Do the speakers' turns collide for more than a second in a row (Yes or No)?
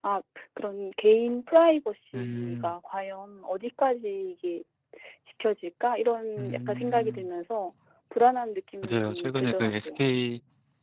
Yes